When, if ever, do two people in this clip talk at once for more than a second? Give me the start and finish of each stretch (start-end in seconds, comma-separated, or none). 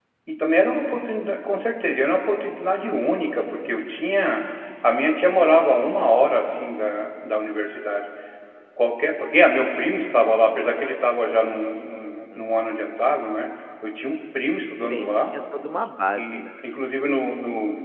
none